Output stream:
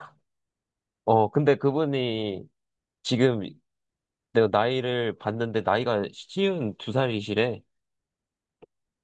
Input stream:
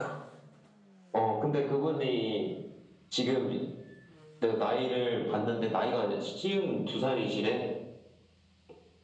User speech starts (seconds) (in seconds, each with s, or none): none